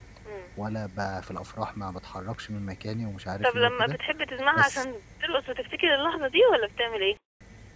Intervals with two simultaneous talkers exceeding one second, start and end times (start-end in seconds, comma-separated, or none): none